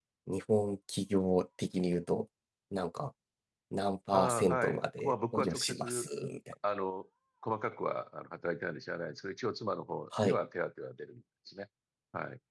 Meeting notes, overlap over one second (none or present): present